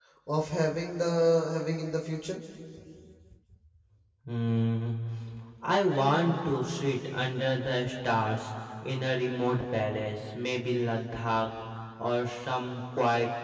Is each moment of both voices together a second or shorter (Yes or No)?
Yes